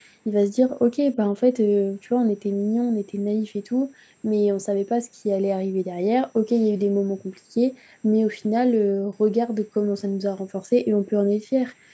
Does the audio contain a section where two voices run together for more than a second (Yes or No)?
No